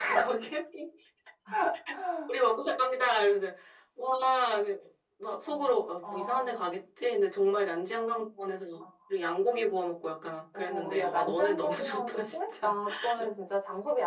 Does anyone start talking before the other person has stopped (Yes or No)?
Yes